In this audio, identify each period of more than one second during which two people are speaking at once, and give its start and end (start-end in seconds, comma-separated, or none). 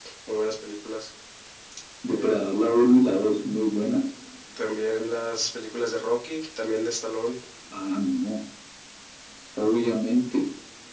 none